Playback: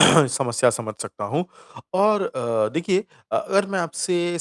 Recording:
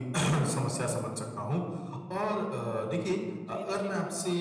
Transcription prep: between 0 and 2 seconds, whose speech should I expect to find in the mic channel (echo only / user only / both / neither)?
echo only